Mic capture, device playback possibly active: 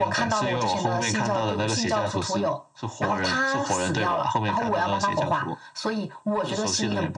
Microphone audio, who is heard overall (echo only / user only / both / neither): echo only